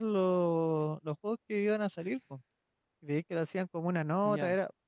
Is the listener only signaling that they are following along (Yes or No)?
Yes